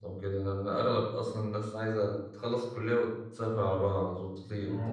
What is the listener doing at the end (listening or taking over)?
taking over